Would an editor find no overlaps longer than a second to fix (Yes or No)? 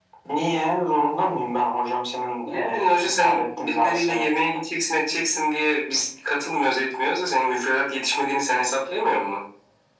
No